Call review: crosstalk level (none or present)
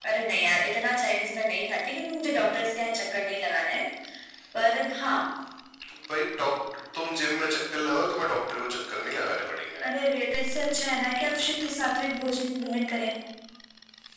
none